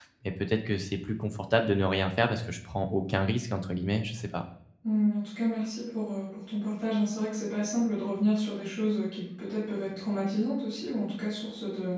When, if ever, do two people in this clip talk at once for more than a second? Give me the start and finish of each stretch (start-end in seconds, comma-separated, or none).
none